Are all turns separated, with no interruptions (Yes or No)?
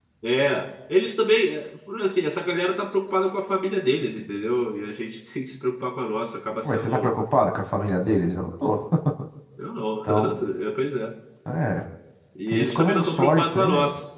No